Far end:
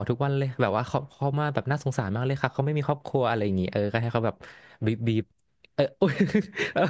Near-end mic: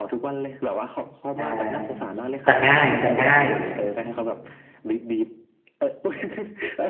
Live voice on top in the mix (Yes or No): Yes